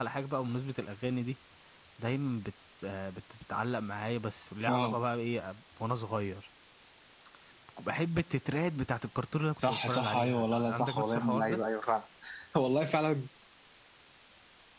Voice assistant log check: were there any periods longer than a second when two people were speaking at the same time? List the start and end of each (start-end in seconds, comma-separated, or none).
9.6-11.6